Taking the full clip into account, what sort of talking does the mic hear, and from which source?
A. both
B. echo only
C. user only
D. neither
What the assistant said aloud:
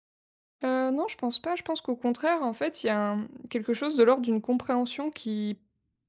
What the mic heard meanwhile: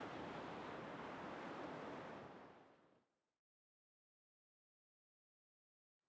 D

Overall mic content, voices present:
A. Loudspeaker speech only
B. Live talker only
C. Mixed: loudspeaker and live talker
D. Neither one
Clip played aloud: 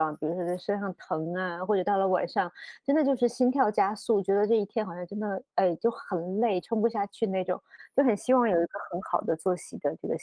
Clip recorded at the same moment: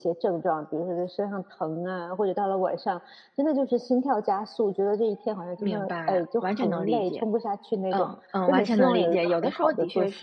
C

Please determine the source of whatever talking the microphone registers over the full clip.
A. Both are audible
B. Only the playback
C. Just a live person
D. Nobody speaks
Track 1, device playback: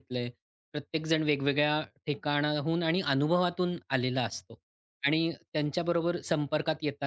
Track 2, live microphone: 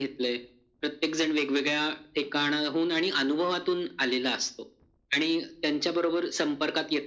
B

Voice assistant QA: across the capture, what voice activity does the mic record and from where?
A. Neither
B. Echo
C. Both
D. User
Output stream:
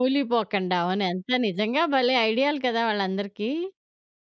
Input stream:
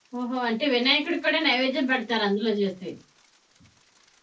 D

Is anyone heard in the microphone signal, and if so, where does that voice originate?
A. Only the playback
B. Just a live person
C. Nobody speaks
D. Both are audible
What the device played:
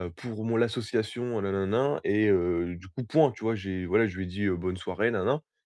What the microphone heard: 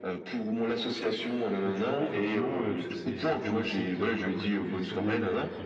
D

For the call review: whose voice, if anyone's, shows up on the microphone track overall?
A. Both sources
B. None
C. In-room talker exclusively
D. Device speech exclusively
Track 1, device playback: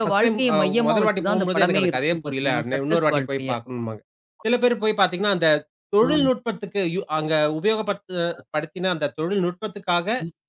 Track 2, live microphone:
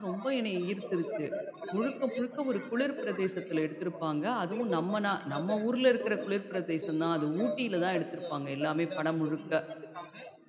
A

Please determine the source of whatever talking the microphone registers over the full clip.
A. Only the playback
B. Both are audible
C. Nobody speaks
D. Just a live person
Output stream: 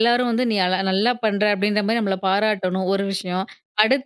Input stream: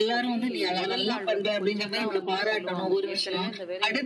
B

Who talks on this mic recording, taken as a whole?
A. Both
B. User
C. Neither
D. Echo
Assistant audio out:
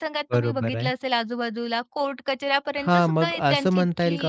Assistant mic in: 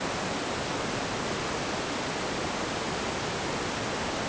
C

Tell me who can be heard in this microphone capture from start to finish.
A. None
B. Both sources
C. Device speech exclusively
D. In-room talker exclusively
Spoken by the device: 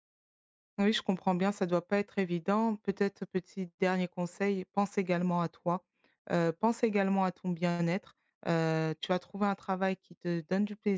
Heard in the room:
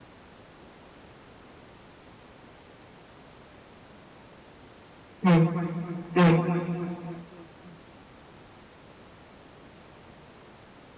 D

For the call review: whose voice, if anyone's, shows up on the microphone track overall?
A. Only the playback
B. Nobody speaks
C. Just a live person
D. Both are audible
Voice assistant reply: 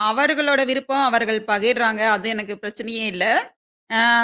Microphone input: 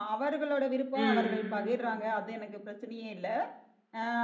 D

